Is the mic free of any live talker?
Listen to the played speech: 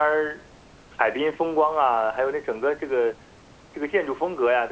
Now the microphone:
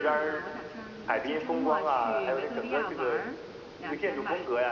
No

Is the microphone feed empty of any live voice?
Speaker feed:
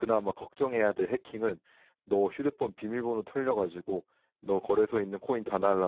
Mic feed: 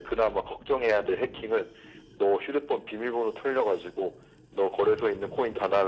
Yes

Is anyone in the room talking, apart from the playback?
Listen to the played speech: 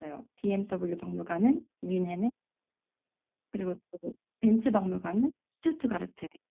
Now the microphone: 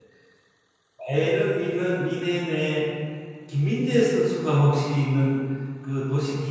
Yes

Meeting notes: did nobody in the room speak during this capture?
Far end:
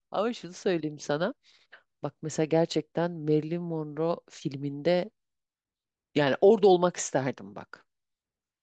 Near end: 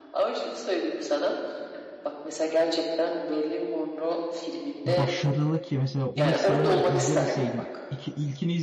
No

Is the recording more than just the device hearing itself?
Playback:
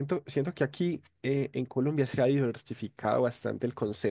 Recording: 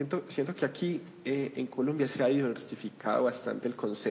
No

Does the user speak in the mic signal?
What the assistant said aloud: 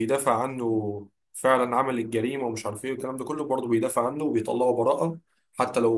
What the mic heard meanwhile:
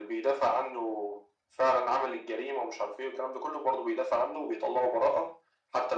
No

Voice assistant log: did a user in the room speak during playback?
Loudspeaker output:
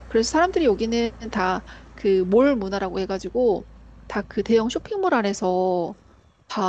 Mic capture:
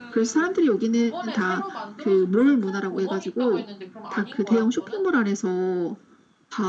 Yes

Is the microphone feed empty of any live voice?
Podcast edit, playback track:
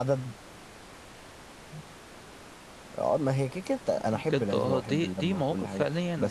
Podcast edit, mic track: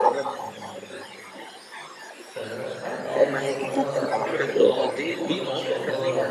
No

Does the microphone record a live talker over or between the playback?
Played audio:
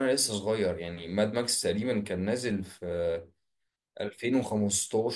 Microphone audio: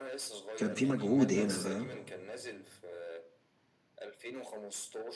Yes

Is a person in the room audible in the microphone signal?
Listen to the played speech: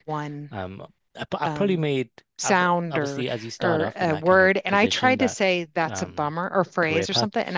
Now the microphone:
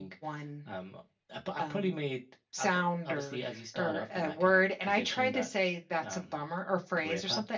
No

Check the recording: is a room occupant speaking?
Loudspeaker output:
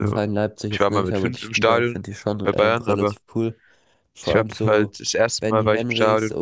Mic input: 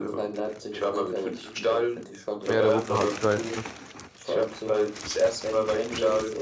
Yes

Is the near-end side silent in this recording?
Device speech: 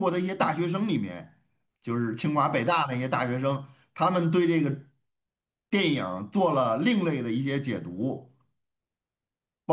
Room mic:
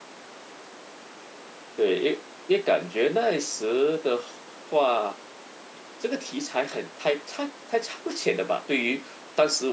No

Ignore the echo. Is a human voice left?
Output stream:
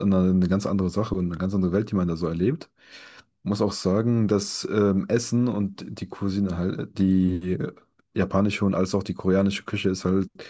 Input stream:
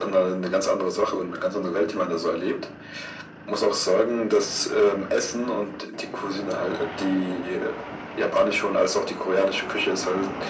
No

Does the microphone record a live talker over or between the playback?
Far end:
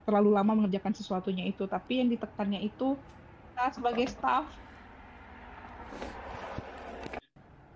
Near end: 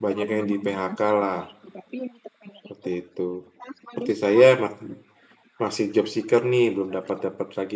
Yes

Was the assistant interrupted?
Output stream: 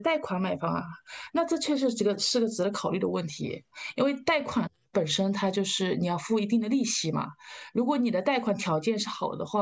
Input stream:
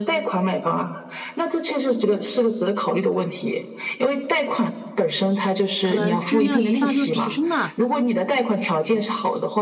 Yes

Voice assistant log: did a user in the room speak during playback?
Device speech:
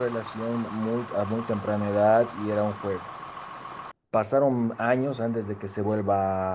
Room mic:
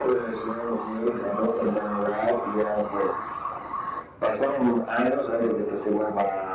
No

